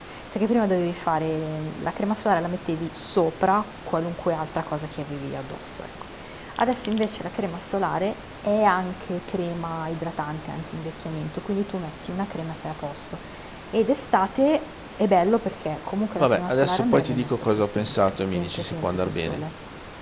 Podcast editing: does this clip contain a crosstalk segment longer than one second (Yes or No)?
Yes